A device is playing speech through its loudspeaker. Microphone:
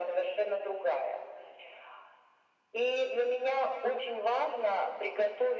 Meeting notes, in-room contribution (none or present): none